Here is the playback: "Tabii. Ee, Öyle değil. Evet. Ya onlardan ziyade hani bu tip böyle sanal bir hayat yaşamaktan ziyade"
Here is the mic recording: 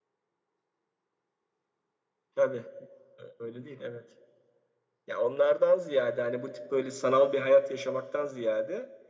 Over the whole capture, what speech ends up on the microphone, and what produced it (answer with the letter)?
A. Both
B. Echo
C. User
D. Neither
B